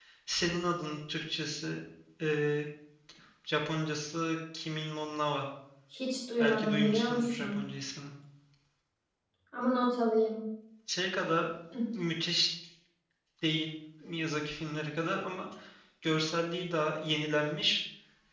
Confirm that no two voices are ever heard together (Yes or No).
No